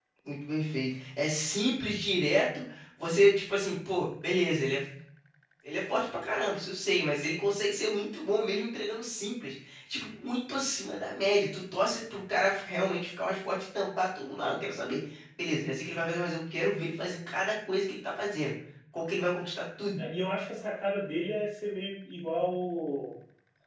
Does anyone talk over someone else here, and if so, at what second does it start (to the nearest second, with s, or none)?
none